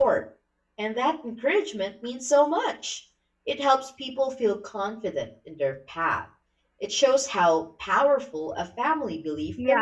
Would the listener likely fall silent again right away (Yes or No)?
No